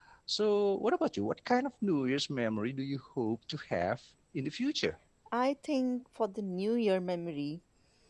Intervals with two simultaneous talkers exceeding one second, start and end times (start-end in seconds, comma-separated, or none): none